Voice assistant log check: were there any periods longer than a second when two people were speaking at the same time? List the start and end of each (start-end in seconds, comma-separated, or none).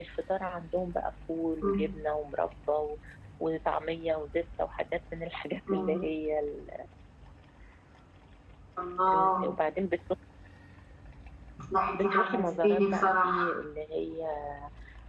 11.9-13.6